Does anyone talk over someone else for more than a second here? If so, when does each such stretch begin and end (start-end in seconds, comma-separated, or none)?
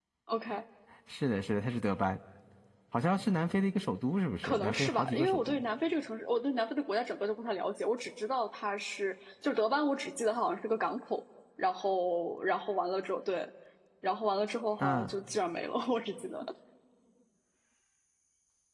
4.4-5.6